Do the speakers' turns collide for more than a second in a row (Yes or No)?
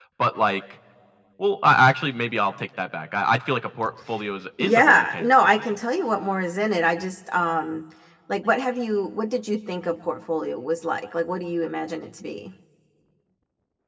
Yes